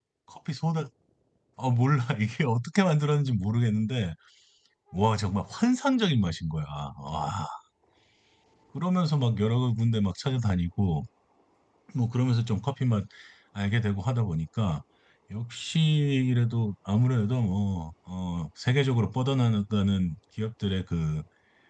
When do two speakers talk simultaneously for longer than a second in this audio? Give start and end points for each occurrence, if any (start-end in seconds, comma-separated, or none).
none